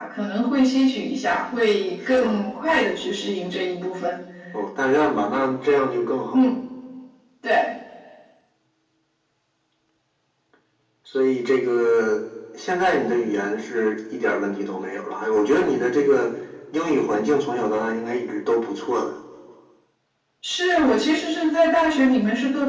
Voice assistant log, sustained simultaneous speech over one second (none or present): none